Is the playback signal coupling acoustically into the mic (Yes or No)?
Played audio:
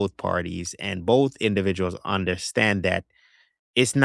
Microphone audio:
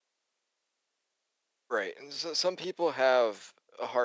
No